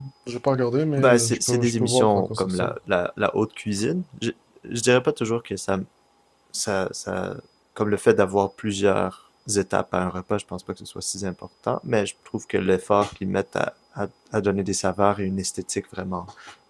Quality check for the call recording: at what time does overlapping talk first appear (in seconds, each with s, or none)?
1.0 s